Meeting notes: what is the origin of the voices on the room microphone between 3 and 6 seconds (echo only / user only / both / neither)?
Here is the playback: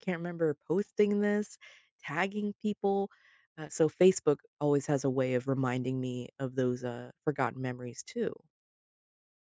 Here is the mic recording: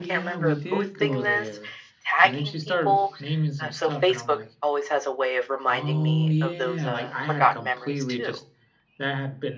both